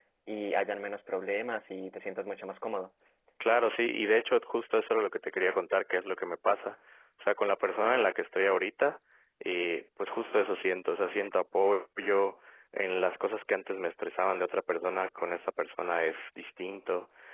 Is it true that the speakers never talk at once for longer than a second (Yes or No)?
Yes